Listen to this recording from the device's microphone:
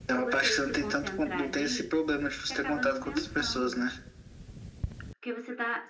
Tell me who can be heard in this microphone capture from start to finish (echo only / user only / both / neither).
echo only